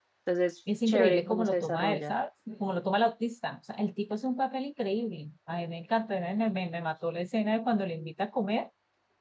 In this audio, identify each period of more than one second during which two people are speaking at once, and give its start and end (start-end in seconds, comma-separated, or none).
0.9-2.1